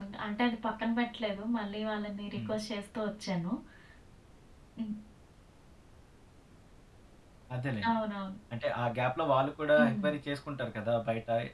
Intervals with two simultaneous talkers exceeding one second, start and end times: none

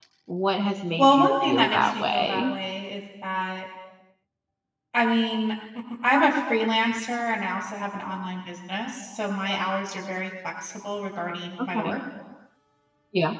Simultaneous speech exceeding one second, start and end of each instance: 1.0-2.5

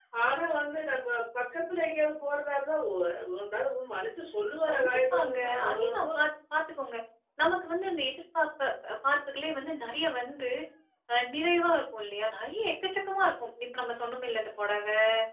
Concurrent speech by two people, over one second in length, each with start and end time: 4.7-6.2

